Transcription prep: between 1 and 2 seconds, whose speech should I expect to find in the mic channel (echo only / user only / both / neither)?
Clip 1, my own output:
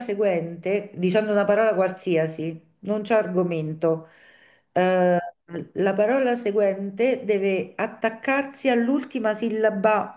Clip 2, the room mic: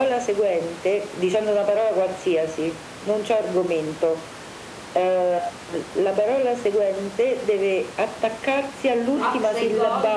echo only